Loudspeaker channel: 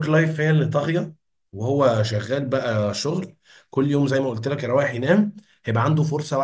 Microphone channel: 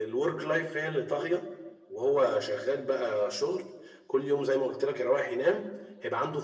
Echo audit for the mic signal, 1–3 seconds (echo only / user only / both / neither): echo only